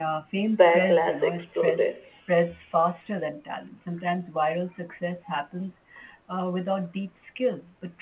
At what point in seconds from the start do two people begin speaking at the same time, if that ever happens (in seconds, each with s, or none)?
0.6 s